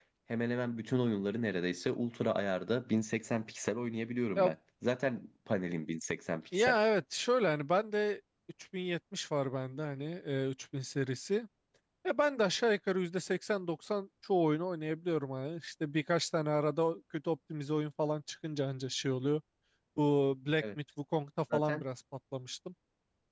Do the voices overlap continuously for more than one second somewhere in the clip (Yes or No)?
No